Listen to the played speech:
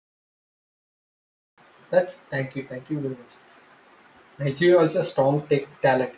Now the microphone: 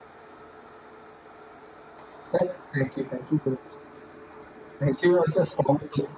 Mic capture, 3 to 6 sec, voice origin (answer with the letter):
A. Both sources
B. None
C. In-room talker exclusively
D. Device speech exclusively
D